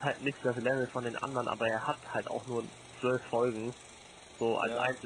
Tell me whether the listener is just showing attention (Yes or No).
No